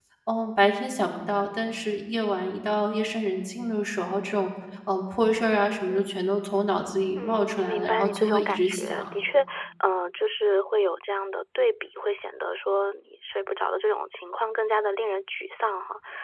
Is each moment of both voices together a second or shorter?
No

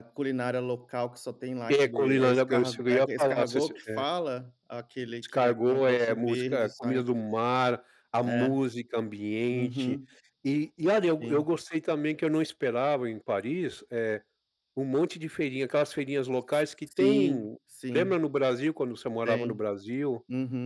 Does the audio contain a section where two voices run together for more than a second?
Yes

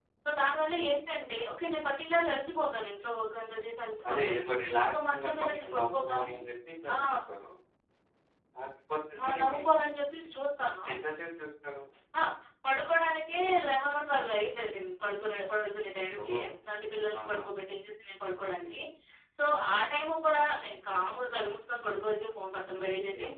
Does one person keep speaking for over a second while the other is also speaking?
Yes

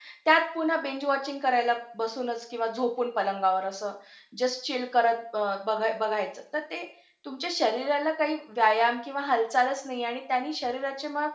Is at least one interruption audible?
No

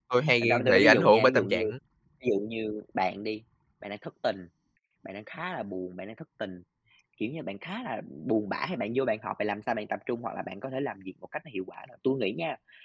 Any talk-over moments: Yes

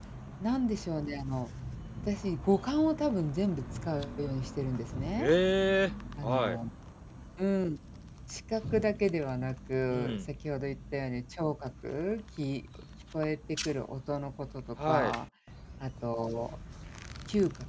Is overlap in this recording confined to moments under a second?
Yes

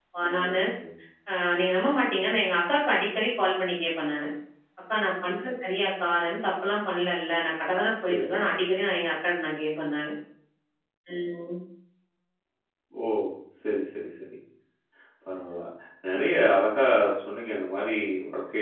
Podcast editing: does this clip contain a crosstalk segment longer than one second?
No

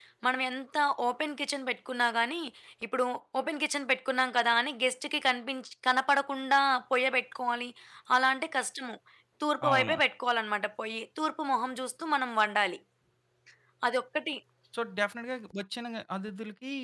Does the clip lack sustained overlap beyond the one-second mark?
Yes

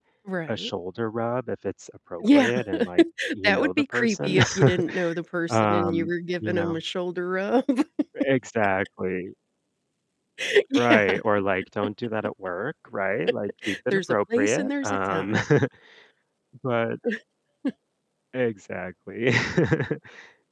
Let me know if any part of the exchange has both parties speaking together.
Yes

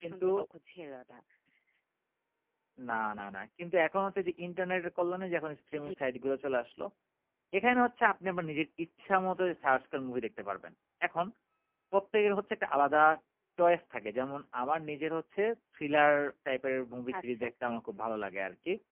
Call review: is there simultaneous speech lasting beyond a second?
No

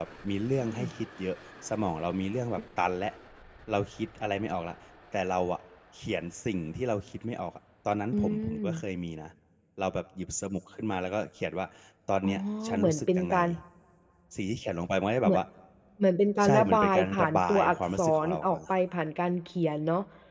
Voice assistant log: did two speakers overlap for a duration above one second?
Yes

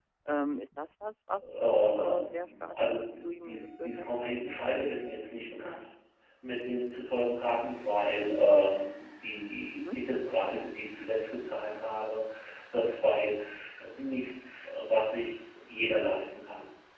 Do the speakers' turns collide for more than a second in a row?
Yes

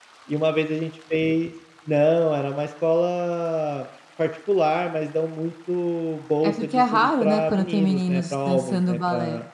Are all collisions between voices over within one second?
No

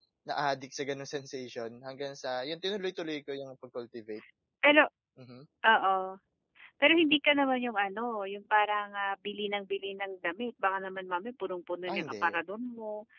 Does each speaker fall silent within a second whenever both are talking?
Yes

